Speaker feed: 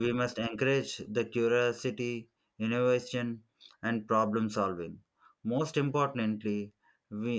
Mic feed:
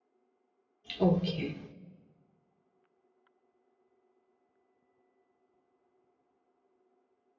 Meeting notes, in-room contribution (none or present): present